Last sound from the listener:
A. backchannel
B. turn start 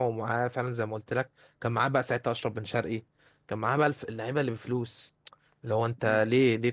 A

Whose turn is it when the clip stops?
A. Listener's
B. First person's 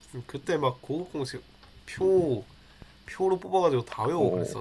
A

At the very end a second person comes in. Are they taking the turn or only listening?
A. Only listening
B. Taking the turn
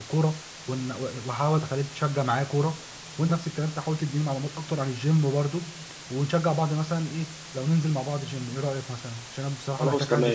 B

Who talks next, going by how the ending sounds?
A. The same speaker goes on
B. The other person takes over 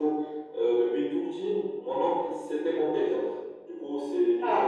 A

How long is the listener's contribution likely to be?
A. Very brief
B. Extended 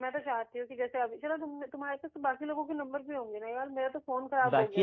B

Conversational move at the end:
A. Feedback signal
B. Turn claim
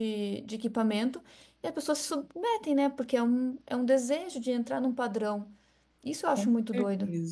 B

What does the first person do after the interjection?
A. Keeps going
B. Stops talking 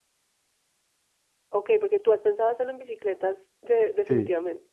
B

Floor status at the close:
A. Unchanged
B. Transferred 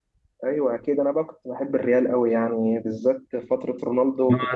B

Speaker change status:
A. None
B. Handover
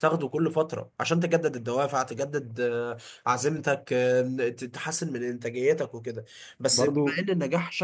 A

